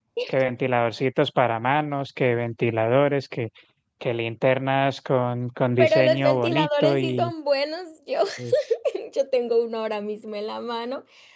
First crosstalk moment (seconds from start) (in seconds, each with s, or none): 5.8 s